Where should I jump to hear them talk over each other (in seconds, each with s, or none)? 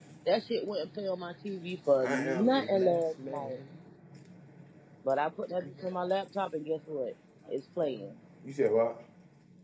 2.0 s